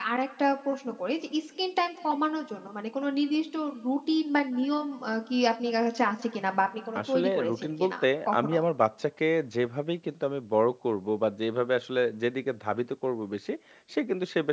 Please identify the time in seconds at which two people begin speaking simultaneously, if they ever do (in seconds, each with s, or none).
7.0 s